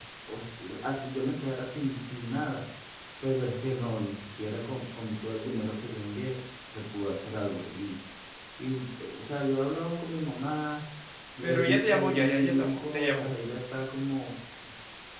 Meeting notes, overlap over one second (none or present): present